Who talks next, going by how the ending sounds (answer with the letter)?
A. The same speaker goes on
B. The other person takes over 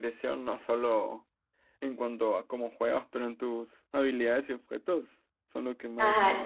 B